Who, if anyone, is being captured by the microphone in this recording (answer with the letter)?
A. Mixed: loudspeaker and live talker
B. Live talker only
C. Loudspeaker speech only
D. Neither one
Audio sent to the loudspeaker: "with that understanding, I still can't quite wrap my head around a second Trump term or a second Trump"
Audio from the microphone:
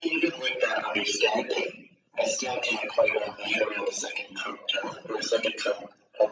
C